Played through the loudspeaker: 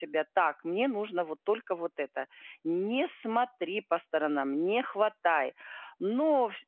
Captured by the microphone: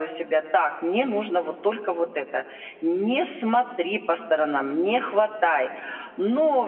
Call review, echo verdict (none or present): present